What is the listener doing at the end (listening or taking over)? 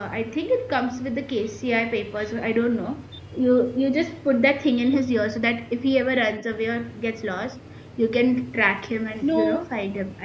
listening